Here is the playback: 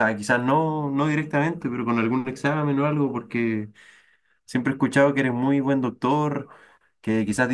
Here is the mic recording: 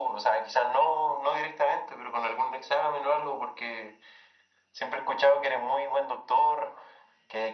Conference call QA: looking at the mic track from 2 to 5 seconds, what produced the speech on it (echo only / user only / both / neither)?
echo only